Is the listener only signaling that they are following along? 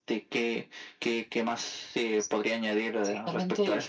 No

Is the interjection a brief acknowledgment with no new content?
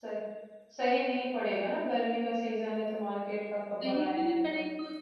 No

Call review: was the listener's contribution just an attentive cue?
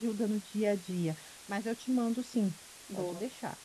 No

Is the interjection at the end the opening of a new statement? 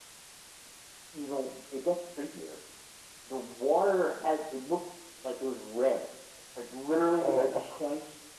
No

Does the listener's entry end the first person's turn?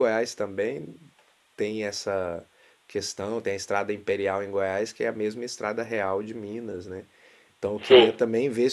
No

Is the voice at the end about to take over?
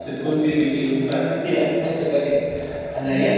No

